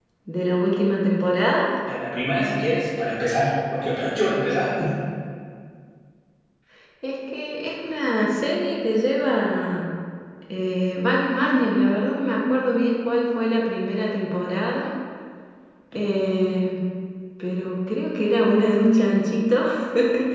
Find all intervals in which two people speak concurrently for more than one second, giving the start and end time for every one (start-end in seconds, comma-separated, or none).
none